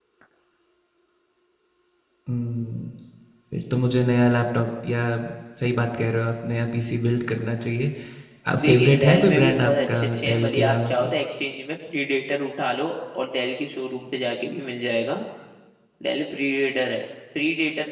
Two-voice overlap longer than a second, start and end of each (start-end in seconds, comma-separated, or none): 8.6-11.1